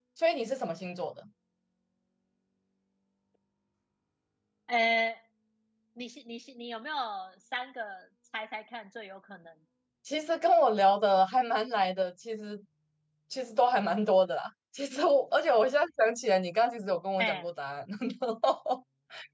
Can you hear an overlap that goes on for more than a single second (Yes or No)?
No